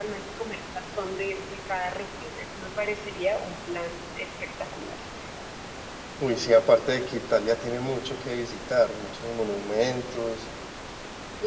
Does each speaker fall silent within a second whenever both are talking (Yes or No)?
Yes